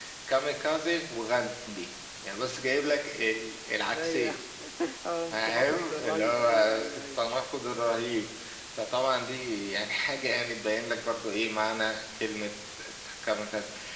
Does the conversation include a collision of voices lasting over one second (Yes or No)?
Yes